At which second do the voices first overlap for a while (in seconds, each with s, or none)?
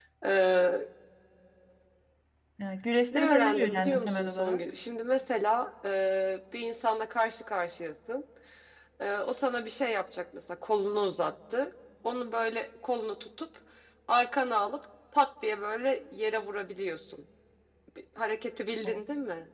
3.1 s